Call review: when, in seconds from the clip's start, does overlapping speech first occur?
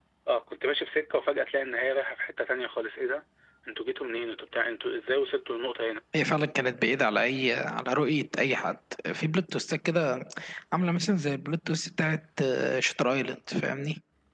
none

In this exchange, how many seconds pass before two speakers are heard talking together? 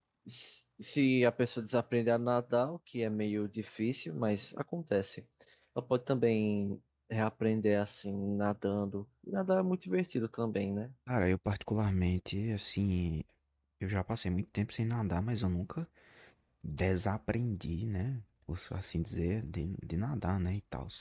none

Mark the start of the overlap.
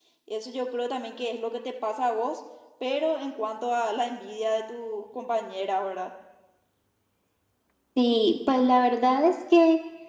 none

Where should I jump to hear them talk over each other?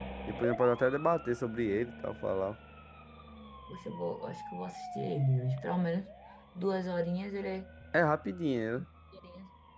none

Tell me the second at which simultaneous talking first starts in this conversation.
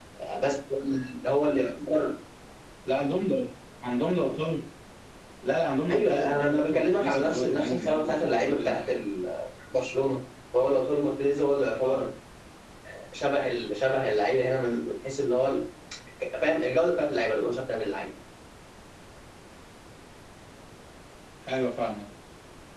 6 s

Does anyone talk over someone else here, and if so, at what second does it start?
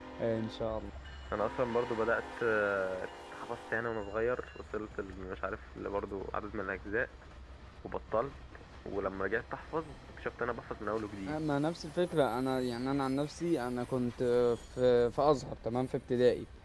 none

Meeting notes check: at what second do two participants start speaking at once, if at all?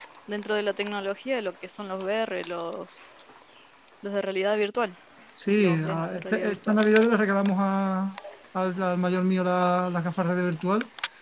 6 s

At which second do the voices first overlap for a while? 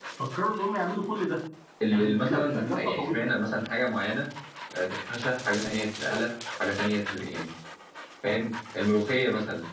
2 s

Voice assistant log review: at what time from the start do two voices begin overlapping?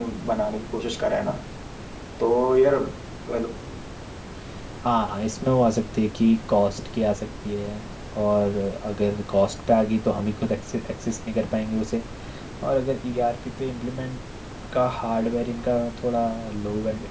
none

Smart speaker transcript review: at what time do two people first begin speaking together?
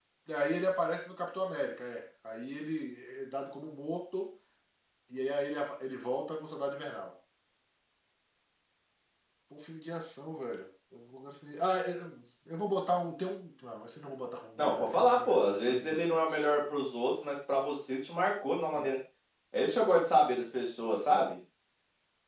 15 s

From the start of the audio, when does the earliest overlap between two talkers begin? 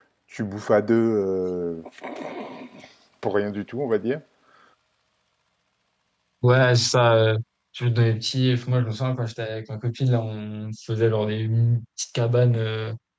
none

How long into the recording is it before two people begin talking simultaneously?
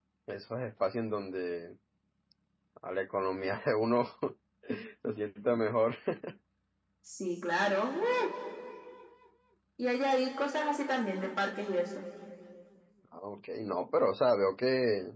none

